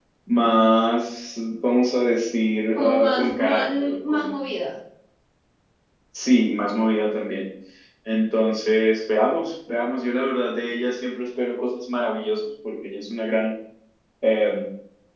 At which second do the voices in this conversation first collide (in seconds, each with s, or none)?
2.8 s